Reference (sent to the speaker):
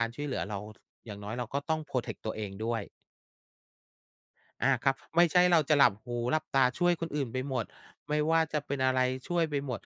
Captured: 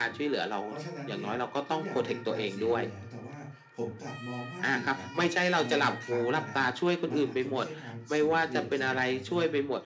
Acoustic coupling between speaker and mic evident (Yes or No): Yes